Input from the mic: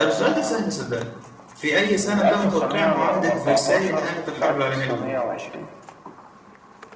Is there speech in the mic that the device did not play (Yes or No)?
Yes